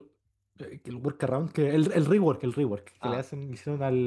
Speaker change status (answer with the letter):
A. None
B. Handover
A